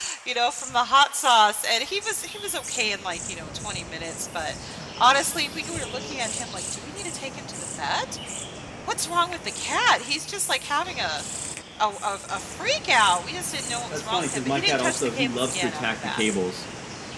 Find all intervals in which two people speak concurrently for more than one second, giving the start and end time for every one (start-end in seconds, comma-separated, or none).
13.9-16.2